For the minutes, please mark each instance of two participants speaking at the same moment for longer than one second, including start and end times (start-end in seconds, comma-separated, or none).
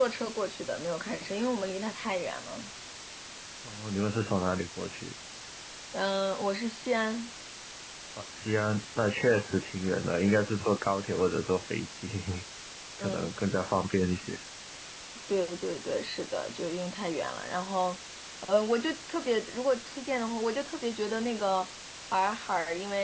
none